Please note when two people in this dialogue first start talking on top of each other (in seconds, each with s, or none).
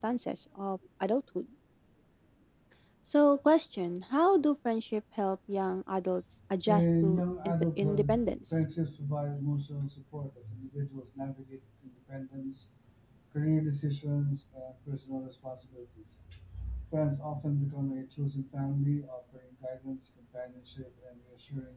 6.6 s